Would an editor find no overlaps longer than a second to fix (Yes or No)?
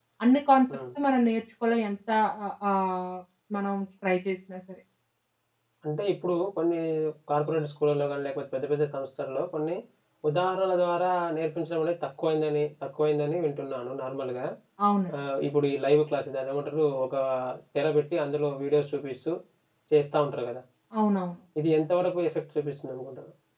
Yes